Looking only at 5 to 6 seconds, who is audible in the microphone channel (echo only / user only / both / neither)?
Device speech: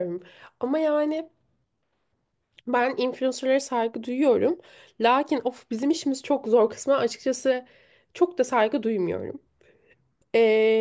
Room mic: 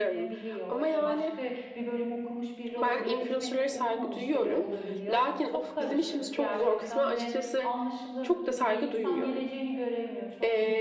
both